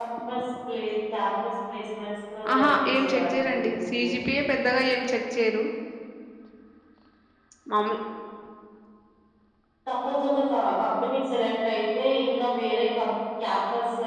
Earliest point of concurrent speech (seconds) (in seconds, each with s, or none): 2.4 s